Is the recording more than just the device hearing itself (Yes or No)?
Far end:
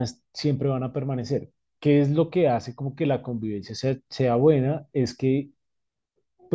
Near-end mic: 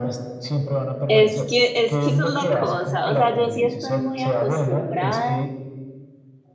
Yes